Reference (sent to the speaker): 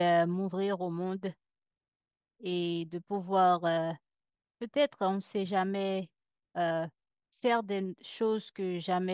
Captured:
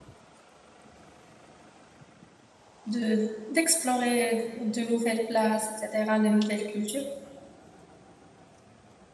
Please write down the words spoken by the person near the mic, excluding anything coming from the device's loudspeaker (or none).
de, d'explorer de nouvelles places, etc., de nouvelles cultures.